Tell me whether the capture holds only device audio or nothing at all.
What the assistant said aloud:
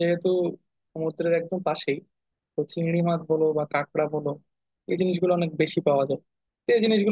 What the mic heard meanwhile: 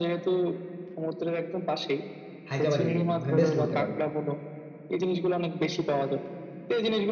No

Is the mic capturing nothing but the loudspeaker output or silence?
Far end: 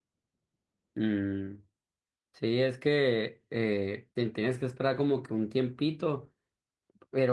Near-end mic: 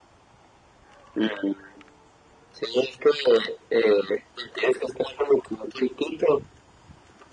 Yes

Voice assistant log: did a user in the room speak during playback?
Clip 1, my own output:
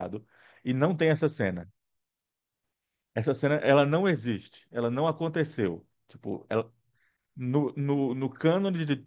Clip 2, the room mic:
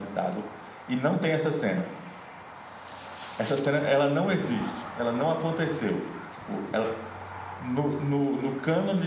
No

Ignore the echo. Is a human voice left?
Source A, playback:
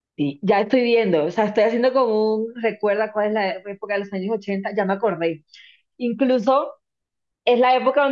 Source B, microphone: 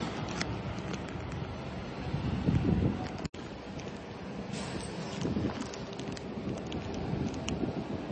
No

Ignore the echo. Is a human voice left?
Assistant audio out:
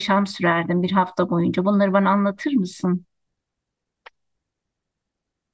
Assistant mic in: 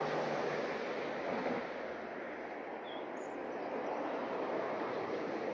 No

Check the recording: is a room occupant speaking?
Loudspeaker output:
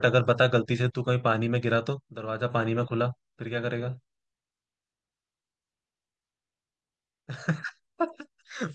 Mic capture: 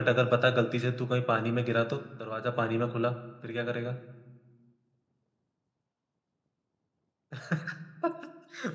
No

